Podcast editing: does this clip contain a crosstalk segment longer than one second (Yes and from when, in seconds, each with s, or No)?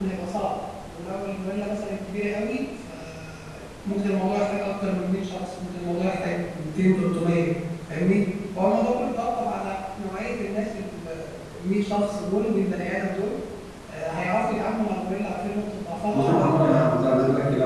Yes, from 16.1 s